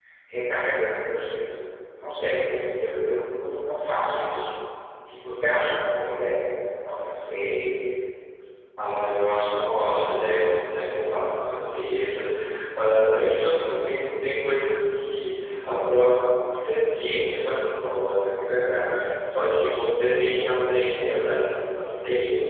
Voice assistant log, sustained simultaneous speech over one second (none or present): none